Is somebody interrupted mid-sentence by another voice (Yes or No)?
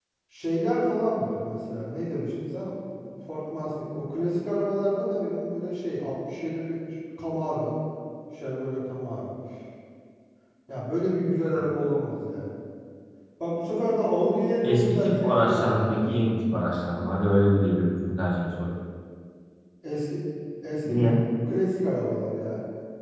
Yes